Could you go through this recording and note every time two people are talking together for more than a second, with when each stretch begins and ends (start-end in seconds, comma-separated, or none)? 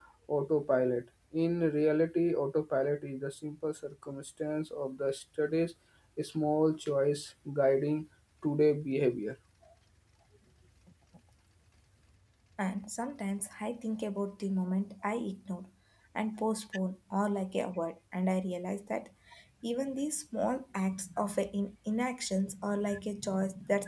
none